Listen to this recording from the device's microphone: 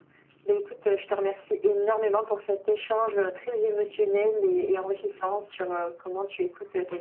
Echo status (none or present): present